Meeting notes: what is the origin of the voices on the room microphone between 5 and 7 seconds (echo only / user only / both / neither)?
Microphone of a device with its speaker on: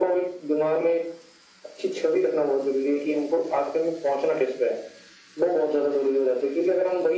echo only